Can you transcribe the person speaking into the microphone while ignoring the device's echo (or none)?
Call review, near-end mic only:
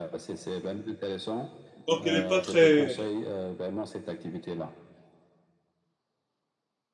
Donc elle est pas très,